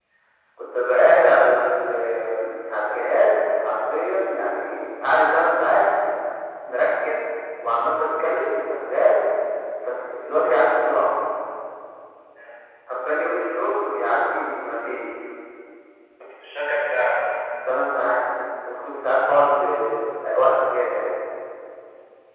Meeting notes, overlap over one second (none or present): none